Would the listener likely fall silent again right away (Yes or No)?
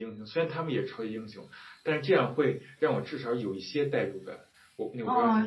No